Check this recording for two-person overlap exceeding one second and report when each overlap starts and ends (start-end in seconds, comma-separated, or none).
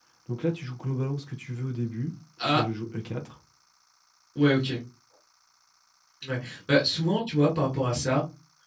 none